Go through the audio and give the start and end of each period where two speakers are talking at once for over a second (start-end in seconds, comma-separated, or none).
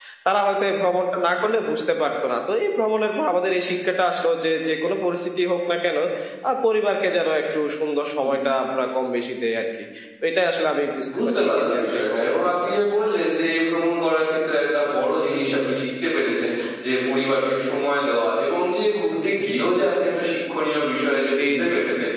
11.1-12.8